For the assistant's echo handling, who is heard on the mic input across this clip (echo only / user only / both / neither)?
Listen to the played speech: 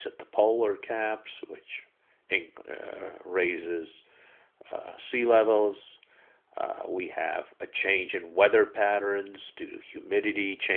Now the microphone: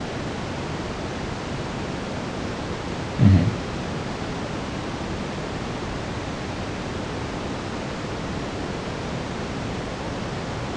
user only